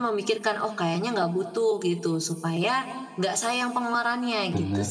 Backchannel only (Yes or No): No